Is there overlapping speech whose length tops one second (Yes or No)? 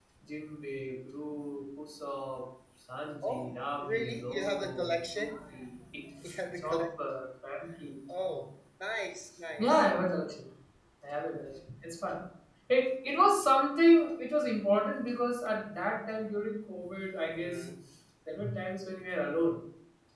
Yes